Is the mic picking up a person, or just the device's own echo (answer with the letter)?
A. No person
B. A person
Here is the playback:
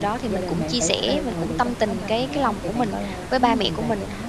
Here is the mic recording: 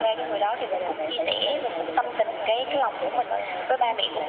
A